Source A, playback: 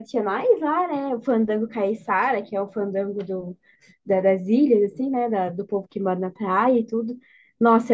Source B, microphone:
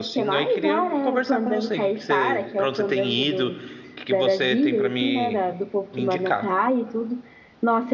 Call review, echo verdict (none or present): present